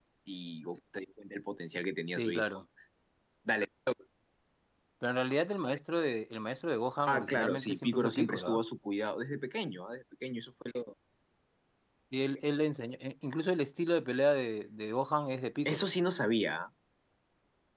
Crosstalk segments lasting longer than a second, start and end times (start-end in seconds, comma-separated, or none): 7.1-8.6